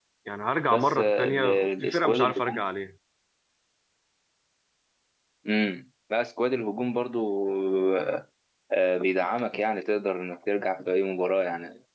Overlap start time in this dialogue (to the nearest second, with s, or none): 1 s